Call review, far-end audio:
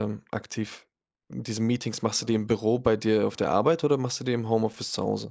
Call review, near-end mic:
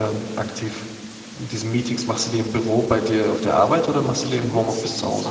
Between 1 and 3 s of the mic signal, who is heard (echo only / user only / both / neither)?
echo only